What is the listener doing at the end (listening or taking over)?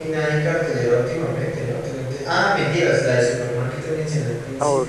taking over